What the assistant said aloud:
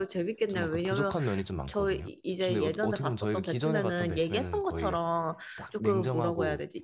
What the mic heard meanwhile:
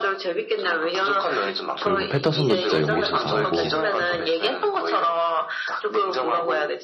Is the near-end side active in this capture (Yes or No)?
Yes